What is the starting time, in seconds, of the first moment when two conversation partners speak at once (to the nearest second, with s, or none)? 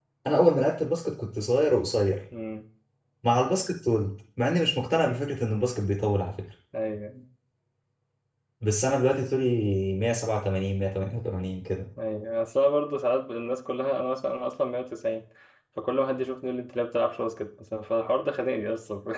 none